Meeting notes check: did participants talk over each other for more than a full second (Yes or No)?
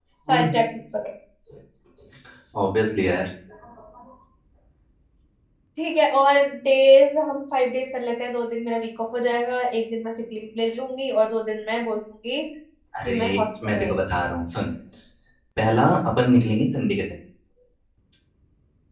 No